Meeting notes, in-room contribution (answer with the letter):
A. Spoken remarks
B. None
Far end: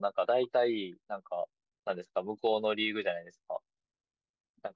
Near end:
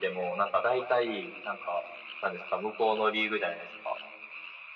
B